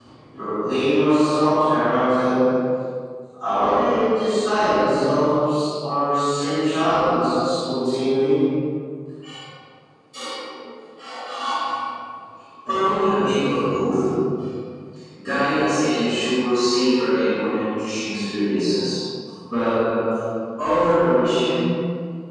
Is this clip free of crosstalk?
Yes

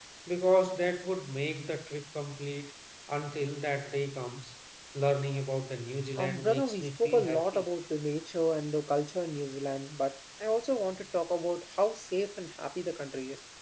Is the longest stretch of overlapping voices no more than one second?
No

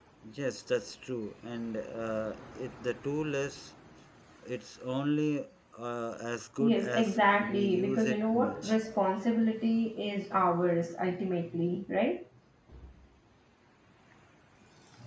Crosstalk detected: Yes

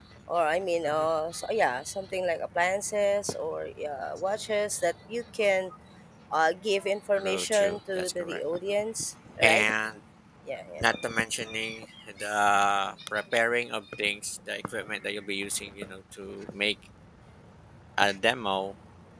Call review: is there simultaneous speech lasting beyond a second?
Yes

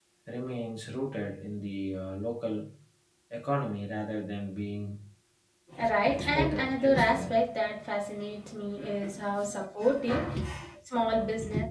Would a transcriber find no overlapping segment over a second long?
No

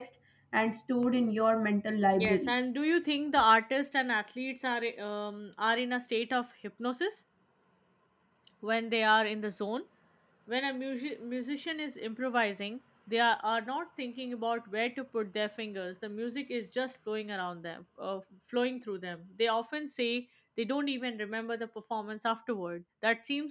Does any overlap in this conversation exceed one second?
No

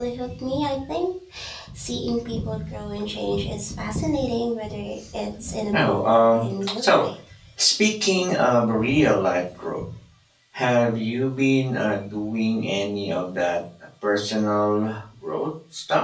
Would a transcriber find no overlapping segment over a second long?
No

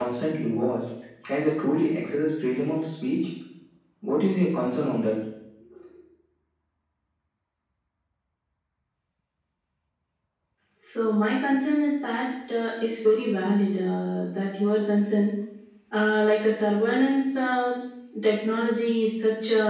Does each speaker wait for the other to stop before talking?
Yes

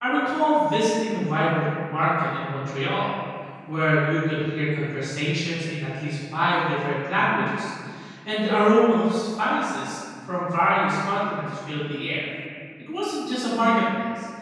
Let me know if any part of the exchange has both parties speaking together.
No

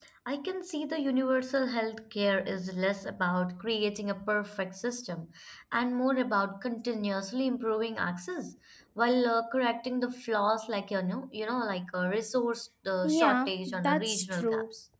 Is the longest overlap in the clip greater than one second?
Yes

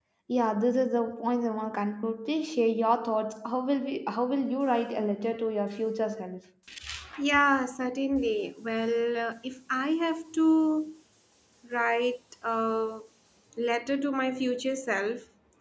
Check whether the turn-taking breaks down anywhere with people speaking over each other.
No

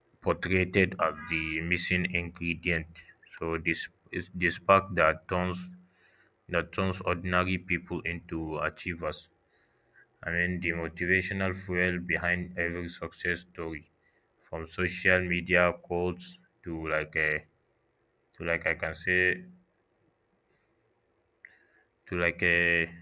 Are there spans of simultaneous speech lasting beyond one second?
No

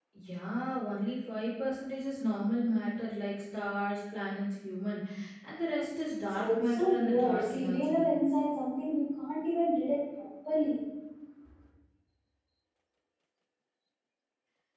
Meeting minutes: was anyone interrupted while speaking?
Yes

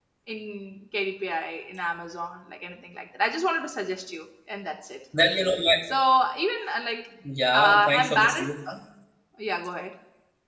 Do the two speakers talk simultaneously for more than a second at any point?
Yes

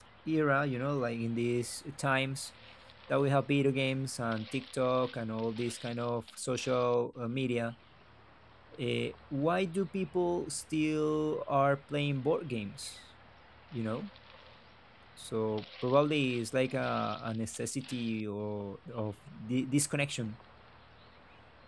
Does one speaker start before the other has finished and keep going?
No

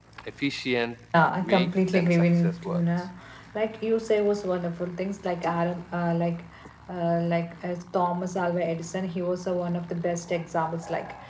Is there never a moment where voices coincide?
No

